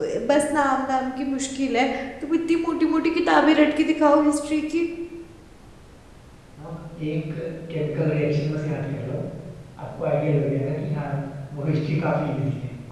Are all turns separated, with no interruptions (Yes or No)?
Yes